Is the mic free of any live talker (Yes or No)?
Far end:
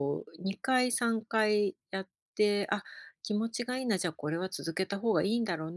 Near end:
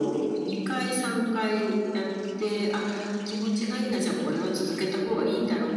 Yes